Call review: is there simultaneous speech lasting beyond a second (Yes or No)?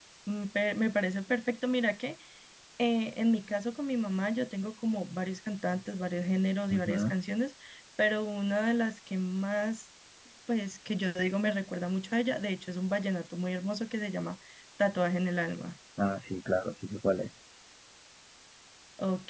No